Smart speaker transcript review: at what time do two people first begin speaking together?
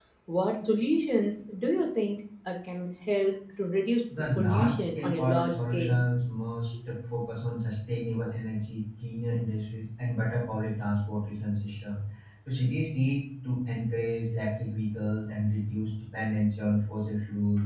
4.4 s

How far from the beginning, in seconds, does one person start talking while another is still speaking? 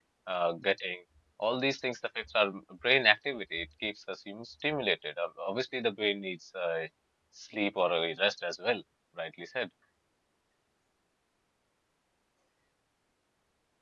none

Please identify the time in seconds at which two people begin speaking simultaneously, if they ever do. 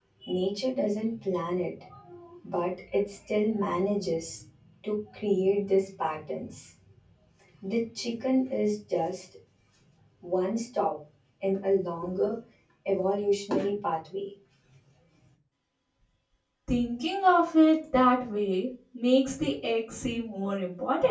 none

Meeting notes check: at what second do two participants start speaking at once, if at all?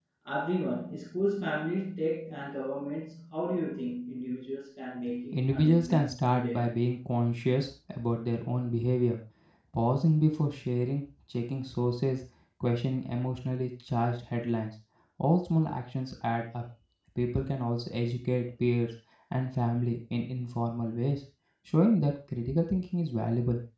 5.3 s

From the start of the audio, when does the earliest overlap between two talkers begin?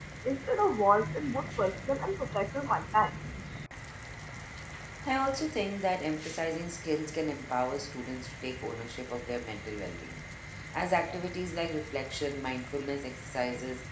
none

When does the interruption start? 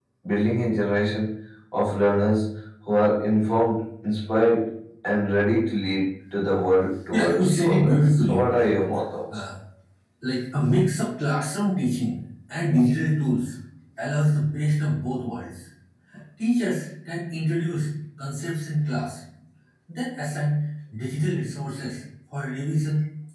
7.1 s

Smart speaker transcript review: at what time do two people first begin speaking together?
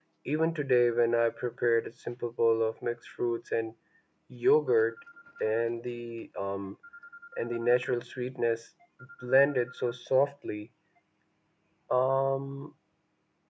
none

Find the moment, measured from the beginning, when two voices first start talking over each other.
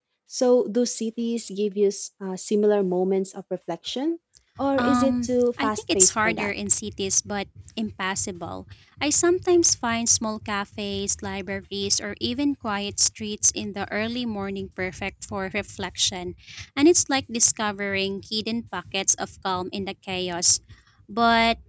4.8 s

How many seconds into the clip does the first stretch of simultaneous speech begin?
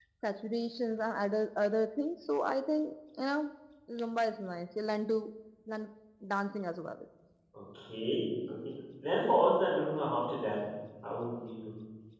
none

